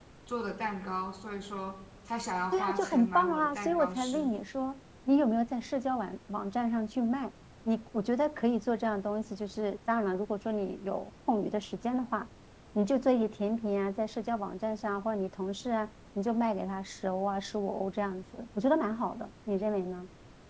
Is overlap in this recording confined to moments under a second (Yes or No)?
No